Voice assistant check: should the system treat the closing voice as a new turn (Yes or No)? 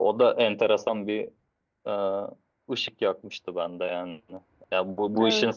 No